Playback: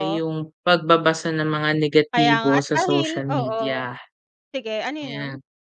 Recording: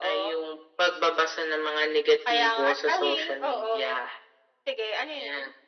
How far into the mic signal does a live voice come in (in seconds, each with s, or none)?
none